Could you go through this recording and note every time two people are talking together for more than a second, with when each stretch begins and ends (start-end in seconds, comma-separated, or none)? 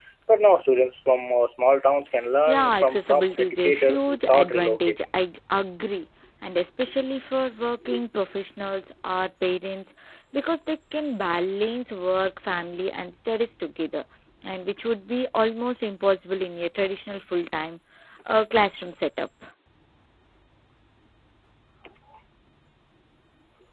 2.5-5.0